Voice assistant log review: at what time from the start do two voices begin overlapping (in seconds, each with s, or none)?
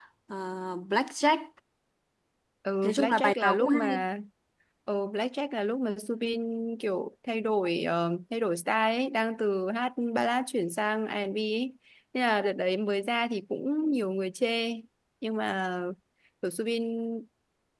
2.8 s